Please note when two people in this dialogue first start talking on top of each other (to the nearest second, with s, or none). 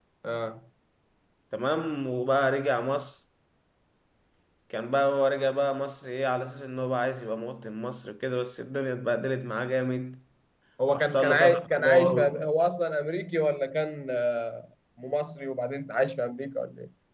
11 s